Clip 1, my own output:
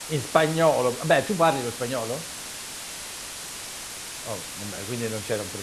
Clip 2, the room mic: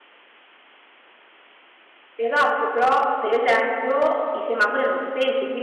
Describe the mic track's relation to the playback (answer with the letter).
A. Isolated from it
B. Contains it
A